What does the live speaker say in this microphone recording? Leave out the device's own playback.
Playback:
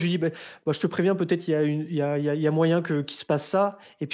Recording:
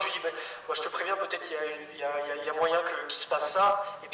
none

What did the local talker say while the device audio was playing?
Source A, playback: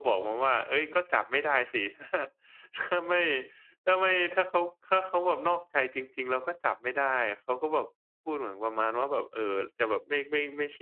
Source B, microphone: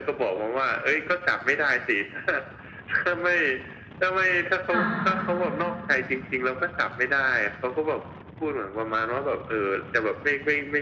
ค่ะ

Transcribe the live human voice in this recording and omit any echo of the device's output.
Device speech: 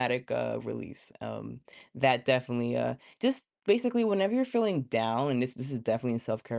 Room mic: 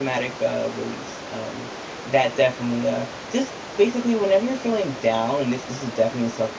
none

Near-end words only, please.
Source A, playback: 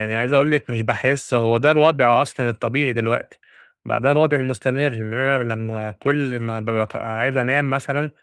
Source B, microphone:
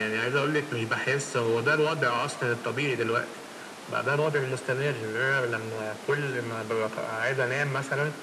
none

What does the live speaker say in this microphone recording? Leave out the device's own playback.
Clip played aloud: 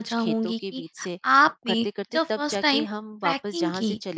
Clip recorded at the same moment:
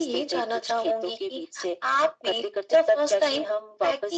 none

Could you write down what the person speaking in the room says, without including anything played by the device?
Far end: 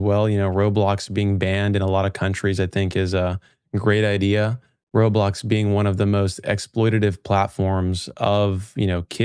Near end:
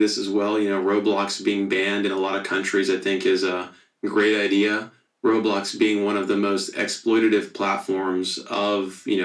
none

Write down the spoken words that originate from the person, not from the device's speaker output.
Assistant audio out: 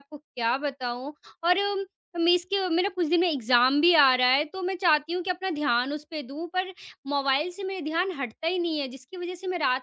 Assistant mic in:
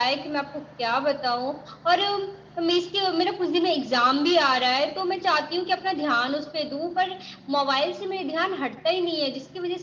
none

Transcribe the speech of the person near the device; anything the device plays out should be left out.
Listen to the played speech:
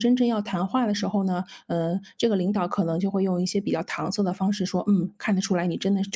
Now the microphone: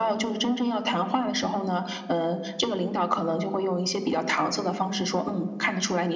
none

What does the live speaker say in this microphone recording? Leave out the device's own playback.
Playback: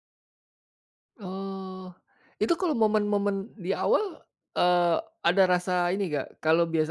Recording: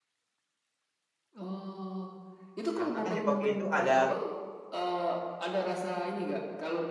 Karena kan di kopi itu ada

